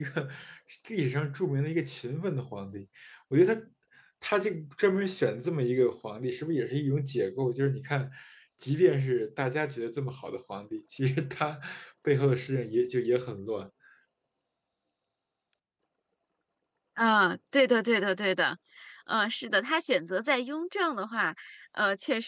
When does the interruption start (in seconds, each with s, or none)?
none